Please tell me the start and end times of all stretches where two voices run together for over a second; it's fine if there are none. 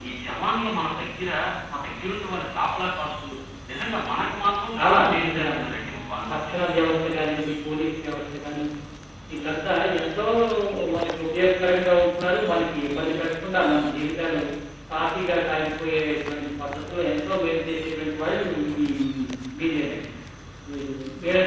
4.7-6.5

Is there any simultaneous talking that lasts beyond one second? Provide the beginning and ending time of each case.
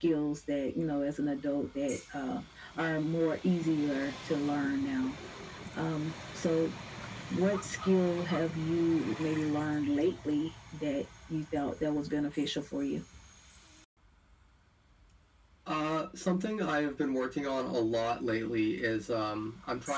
none

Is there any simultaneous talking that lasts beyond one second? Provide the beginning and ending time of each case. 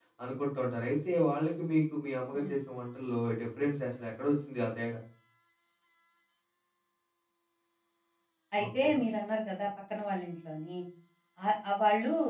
none

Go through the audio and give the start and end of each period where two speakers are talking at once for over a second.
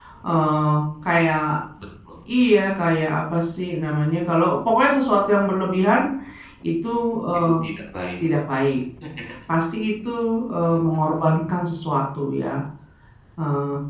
none

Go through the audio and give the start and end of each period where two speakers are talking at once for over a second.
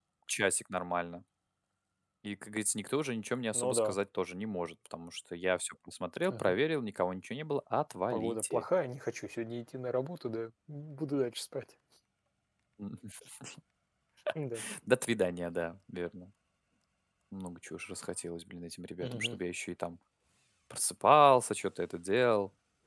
none

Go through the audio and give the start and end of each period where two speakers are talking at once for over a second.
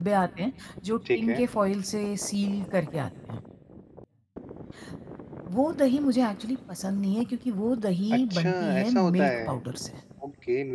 8.1-9.6

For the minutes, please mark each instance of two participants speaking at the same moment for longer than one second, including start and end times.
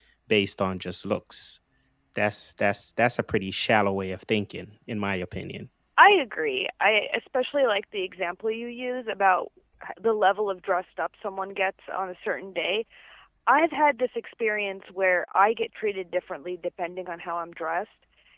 none

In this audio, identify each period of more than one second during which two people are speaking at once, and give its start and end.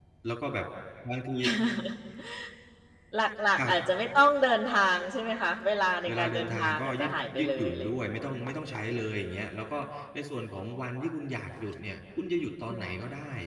6.1-8.2

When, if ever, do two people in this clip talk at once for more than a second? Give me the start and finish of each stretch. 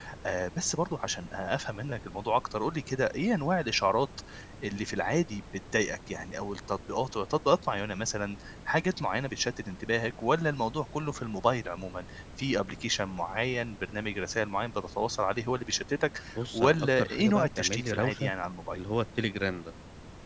16.4-18.3

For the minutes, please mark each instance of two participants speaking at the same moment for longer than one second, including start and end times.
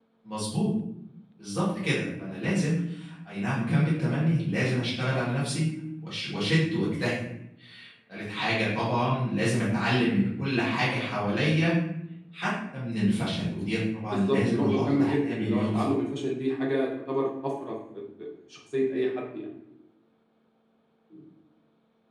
14.1-15.9

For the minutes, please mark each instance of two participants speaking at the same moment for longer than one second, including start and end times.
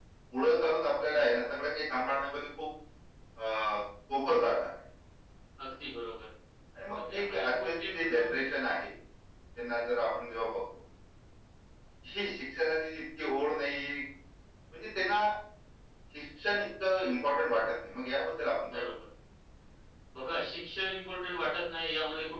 7.1-8.6

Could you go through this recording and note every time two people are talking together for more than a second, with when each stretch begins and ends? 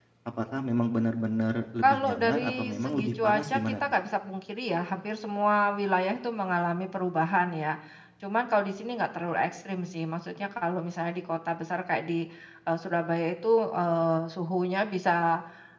1.8-3.8

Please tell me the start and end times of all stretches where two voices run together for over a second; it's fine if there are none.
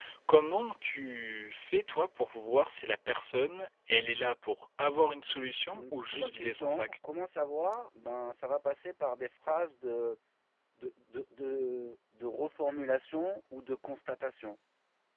5.7-6.9

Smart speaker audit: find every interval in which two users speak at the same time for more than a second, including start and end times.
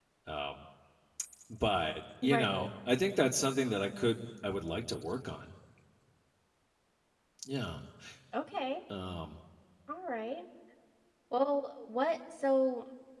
none

